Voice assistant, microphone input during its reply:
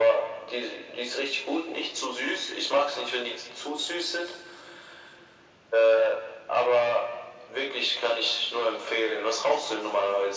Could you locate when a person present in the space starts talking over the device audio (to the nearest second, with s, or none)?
none